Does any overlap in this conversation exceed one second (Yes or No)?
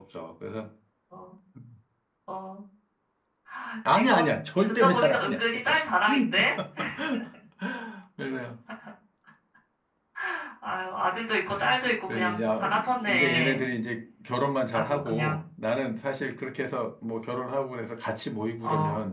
Yes